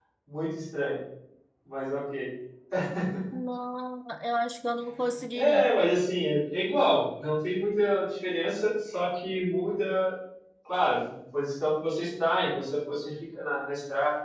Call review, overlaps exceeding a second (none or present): none